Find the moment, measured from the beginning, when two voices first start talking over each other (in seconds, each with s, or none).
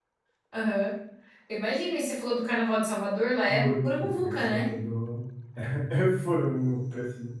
3.5 s